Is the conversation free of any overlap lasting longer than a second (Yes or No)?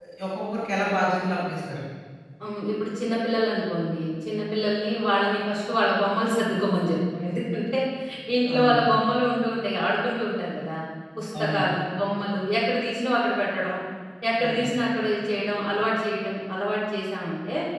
Yes